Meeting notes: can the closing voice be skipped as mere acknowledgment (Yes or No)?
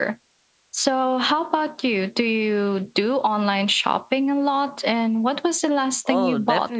No